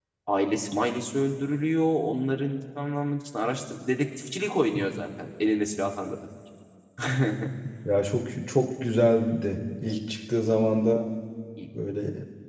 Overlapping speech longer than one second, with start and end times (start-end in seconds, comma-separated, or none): none